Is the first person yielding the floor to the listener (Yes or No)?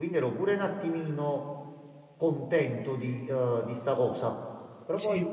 No